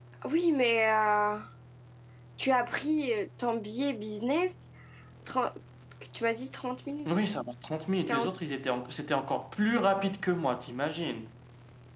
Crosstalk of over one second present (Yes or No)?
No